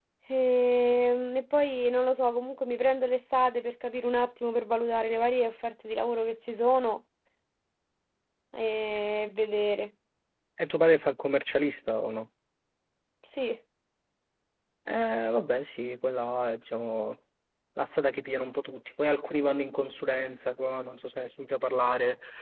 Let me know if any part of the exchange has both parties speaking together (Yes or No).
No